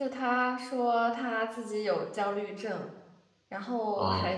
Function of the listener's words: listening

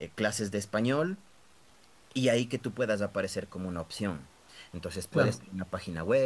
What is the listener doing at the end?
listening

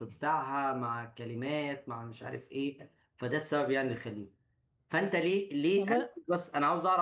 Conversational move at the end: listening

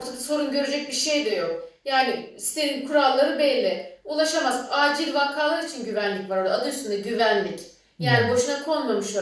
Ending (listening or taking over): listening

